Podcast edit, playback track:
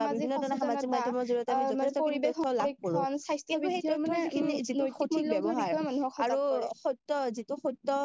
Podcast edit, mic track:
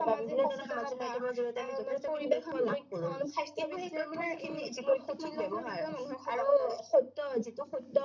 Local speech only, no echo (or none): none